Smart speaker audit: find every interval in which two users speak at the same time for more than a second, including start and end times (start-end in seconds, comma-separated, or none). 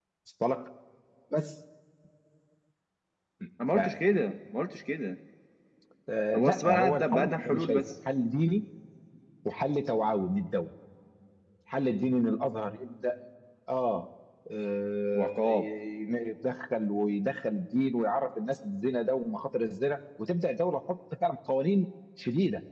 6.3-7.8